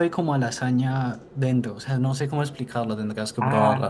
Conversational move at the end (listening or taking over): taking over